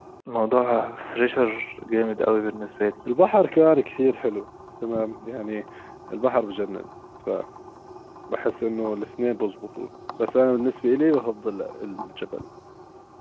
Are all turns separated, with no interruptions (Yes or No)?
Yes